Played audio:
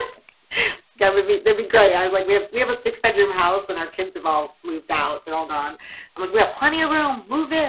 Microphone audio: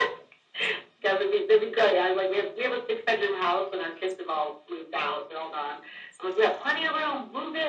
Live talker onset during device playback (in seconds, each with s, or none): none